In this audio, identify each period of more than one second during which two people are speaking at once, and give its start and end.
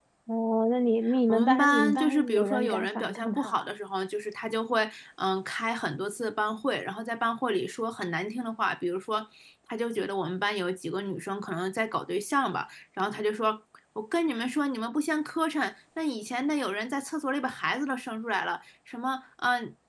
1.3-3.7

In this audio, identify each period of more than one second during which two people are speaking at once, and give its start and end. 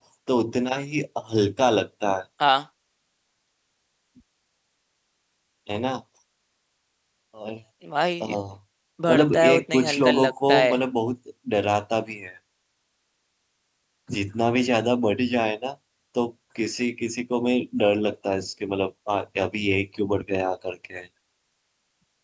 9.1-10.8

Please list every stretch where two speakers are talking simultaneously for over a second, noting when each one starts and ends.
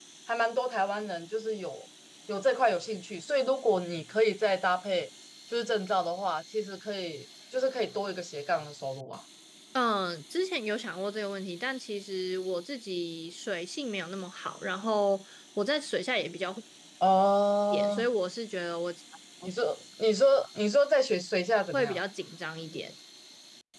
none

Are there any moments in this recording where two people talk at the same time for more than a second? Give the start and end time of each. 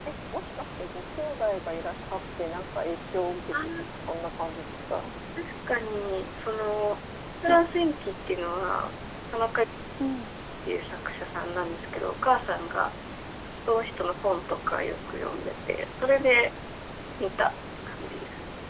none

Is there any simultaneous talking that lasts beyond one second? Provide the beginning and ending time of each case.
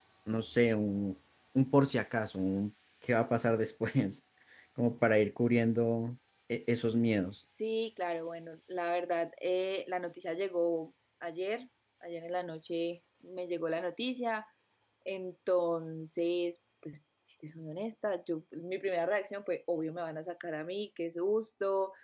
none

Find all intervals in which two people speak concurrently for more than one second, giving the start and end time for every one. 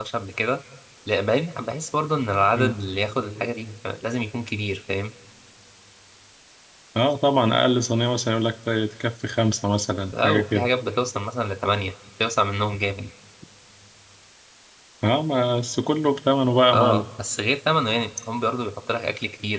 none

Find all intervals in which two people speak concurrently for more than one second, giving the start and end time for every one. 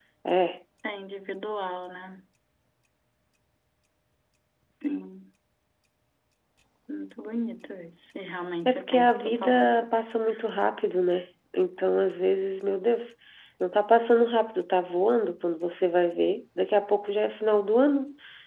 8.7-9.9

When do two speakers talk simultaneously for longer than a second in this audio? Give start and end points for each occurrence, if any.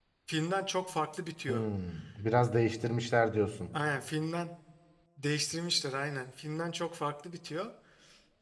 none

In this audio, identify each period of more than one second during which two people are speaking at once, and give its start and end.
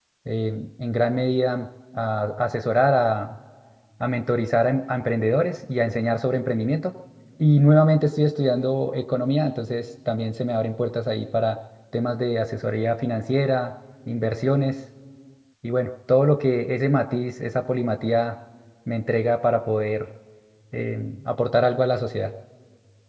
none

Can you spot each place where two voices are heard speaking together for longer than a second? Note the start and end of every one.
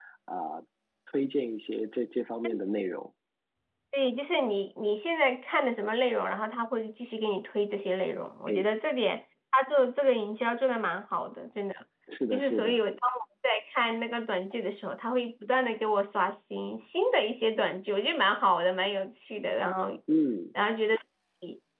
none

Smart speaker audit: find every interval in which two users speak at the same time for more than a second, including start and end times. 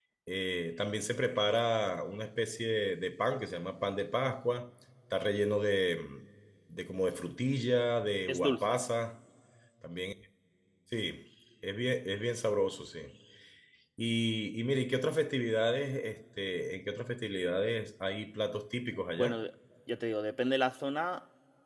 none

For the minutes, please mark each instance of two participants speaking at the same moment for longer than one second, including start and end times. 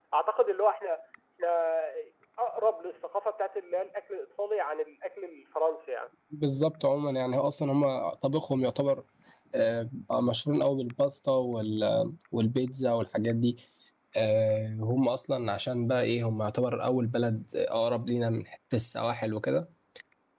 none

